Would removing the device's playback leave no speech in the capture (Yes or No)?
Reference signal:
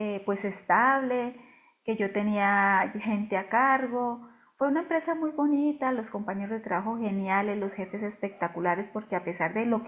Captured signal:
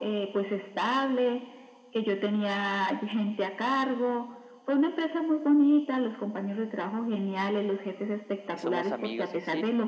No